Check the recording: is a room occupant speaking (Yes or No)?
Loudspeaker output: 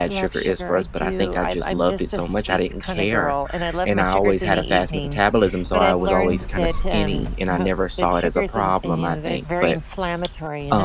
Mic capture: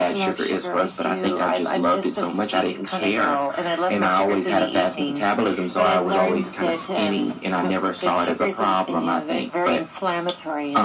No